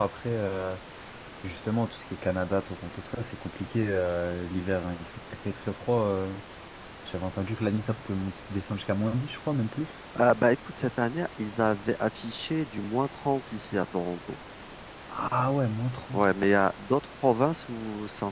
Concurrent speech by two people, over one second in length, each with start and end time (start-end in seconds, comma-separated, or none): none